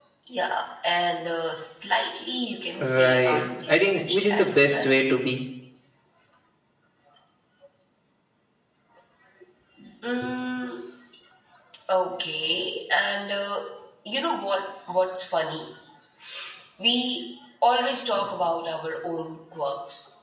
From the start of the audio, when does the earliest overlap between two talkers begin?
3 s

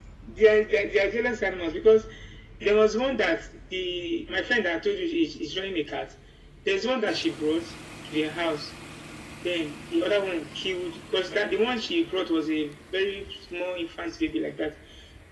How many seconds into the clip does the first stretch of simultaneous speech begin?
none

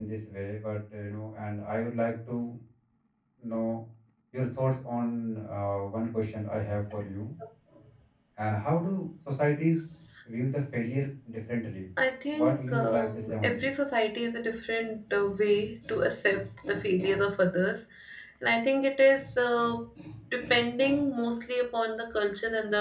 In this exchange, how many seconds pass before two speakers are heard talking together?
12 s

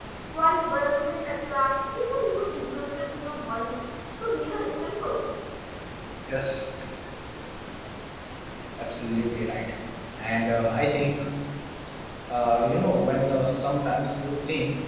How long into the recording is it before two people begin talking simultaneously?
none

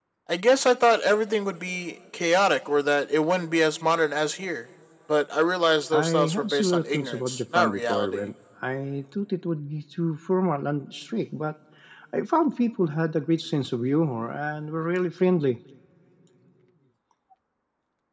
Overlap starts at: 6 s

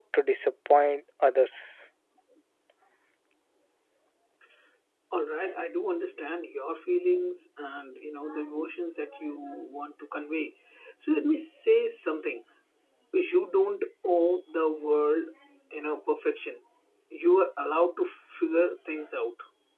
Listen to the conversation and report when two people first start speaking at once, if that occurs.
none

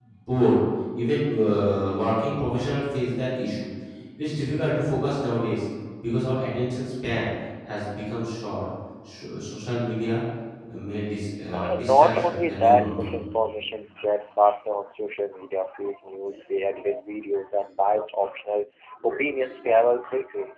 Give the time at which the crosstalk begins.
12 s

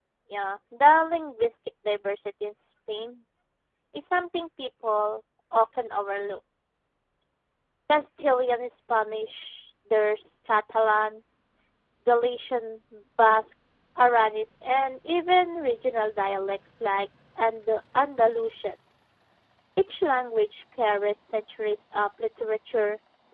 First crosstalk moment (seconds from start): none

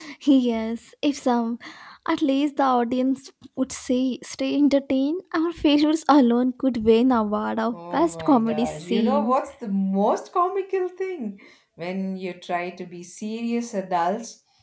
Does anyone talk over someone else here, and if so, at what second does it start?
8 s

